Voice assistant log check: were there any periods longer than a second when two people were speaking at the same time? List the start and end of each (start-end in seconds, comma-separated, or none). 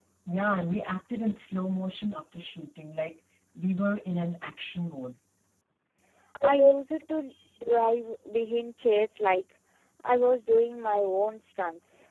none